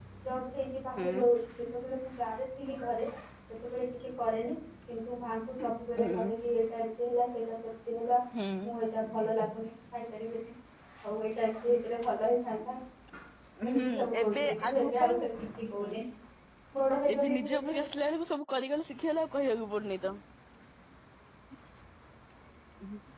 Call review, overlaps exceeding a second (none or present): present